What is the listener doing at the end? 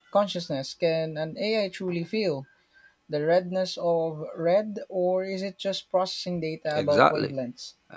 taking over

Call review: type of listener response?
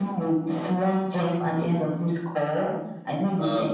taking over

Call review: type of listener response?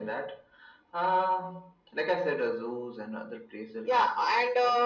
taking over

